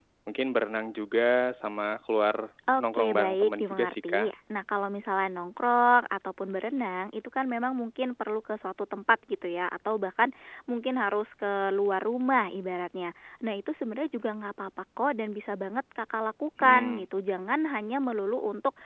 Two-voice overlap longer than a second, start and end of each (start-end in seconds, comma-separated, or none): 2.9-4.3